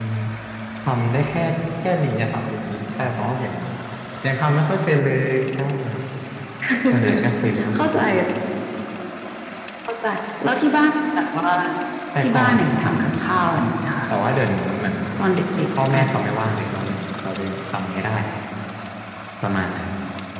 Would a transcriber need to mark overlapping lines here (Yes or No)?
Yes